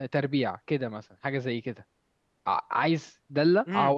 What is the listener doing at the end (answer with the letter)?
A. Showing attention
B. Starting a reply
B